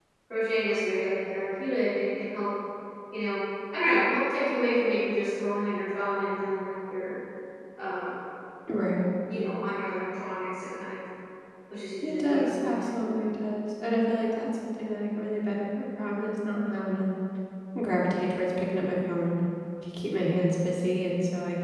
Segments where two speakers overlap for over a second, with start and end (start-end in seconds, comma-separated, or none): 12.0-13.2